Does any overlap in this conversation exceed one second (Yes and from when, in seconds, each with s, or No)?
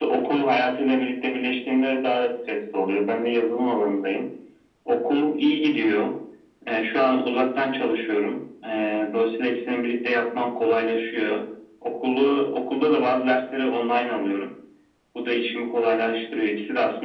No